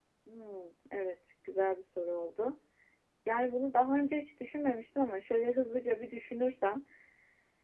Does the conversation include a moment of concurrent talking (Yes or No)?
No